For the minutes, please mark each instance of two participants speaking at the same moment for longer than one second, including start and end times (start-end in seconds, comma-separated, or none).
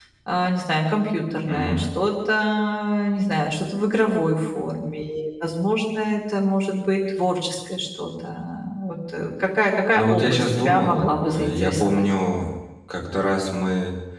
9.9-12.0